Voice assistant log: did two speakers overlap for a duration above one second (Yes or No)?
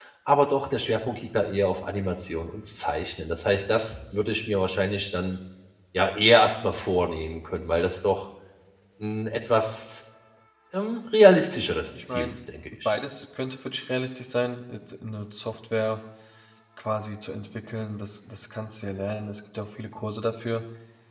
No